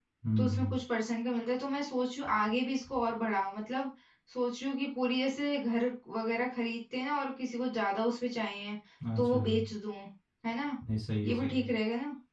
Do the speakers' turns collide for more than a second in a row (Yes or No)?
No